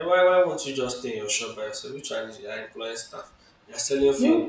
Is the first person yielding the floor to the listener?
No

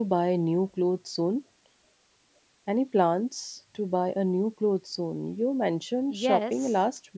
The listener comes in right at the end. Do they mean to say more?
Yes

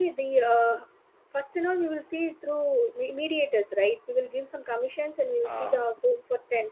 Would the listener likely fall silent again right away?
Yes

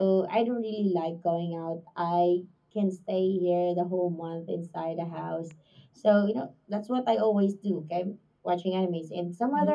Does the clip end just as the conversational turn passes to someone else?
Yes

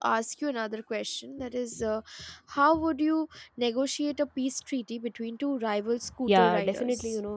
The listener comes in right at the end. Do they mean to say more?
Yes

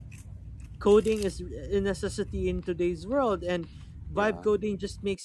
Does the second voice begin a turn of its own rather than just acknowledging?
No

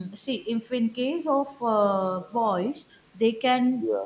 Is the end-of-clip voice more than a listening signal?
No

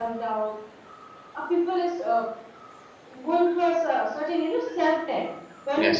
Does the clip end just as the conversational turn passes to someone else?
No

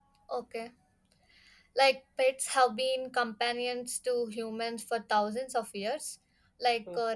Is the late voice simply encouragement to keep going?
Yes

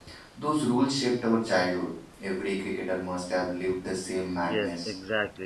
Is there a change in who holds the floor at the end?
Yes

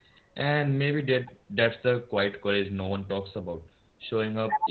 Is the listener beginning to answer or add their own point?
Yes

